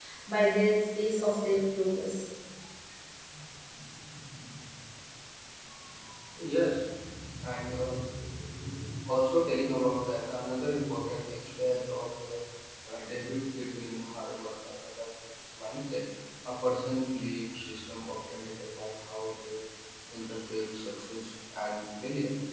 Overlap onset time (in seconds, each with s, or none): none